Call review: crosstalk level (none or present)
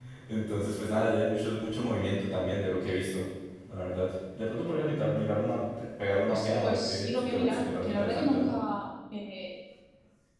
present